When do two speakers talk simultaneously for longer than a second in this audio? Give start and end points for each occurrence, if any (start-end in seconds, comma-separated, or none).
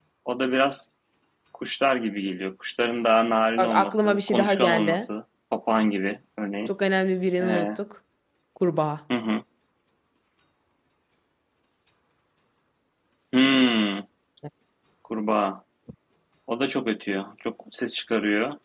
3.6-5.1